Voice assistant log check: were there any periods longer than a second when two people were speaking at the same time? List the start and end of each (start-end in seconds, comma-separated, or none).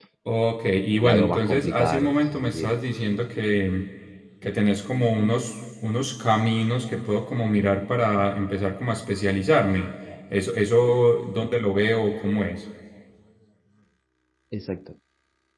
1.0-2.7